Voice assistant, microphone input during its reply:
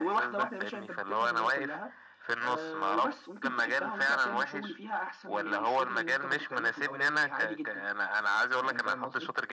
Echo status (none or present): present